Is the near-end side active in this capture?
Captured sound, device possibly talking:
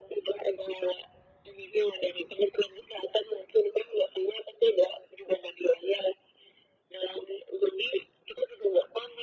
No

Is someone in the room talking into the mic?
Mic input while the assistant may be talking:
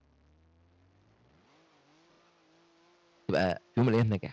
Yes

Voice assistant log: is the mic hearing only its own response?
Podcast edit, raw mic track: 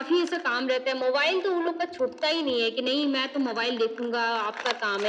Yes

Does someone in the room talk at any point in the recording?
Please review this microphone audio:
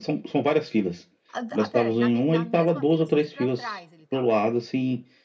Yes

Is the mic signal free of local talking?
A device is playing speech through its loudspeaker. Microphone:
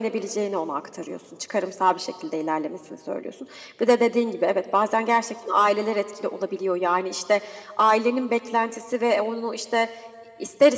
Yes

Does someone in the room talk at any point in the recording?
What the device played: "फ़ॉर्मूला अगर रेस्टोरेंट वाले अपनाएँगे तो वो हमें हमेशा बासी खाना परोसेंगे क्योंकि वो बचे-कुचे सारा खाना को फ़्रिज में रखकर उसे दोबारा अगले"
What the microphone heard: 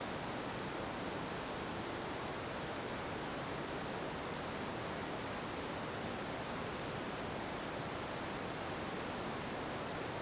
No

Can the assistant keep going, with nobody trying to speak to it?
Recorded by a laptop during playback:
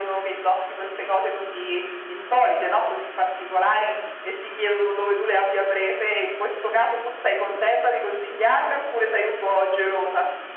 Yes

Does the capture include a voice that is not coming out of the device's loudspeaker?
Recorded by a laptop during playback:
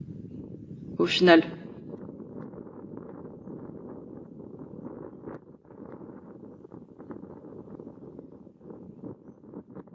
Yes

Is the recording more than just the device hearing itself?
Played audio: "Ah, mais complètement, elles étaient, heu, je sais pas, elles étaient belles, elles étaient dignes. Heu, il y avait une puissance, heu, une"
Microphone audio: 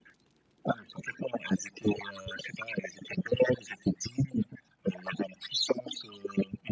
No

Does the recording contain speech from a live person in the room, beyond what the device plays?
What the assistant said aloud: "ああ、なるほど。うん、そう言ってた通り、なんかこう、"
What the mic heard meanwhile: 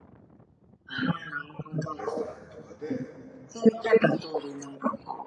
Yes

